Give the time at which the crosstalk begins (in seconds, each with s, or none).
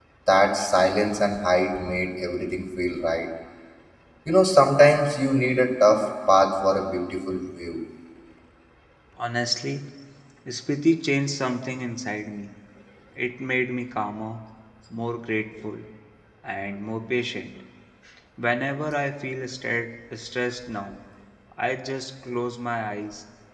none